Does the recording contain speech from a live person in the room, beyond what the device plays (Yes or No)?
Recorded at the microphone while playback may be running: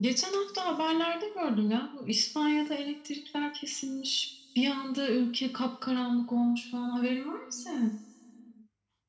No